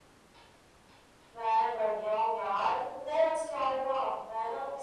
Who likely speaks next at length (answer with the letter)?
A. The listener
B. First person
B